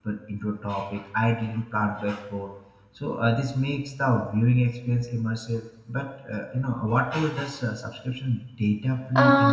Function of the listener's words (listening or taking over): taking over